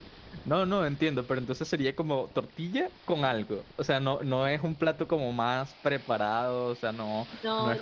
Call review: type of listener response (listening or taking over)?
listening